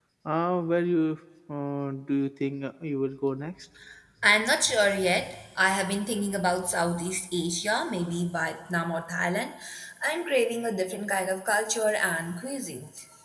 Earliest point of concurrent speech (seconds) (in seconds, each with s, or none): none